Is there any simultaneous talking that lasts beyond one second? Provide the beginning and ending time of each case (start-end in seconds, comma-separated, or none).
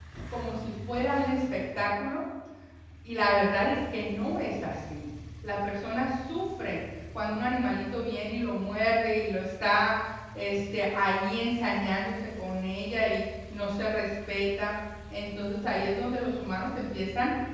none